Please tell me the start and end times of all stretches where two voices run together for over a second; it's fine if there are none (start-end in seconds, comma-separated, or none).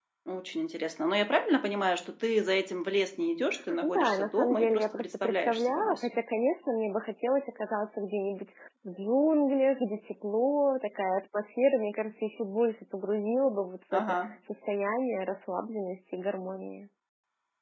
3.8-6.2